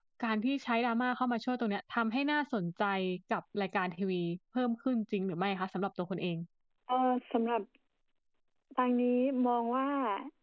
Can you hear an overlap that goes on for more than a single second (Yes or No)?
No